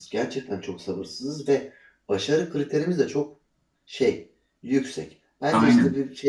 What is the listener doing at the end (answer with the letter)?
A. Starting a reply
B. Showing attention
B